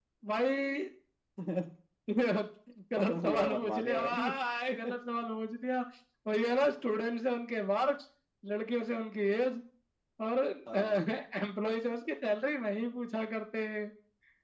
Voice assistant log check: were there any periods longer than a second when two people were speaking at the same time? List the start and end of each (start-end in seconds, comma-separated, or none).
3.0-4.3